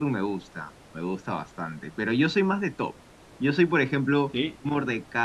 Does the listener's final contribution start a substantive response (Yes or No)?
No